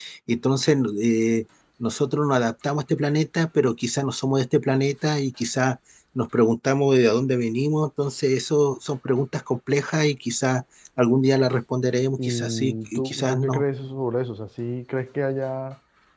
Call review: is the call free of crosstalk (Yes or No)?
No